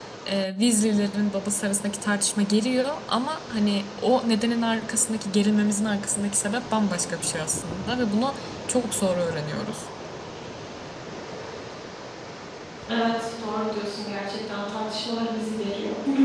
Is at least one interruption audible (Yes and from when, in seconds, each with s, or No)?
No